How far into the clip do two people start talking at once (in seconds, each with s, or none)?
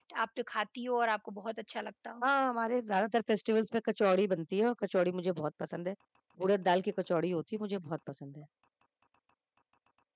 none